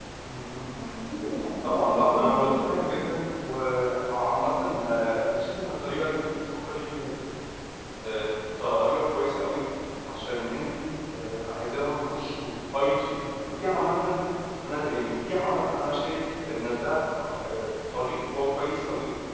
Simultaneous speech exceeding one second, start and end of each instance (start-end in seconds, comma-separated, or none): 1.6-3.1